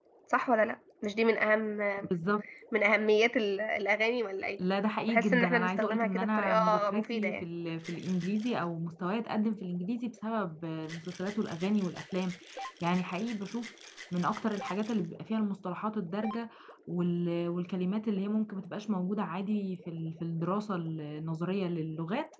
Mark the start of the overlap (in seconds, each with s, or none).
5.1 s